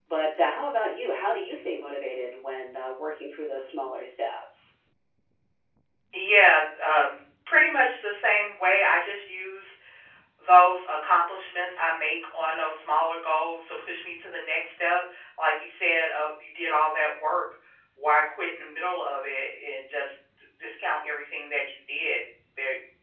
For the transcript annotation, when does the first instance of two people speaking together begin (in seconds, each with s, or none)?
none